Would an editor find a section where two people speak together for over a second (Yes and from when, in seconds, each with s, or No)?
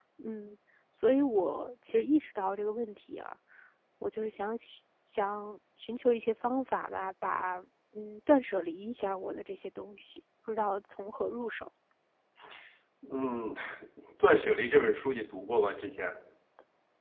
No